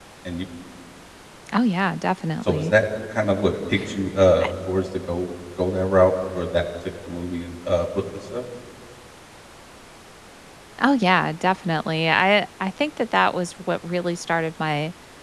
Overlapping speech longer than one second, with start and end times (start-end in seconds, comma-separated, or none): none